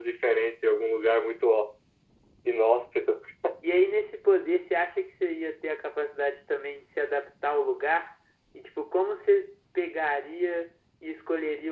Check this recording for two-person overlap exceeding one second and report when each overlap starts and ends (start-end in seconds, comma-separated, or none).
none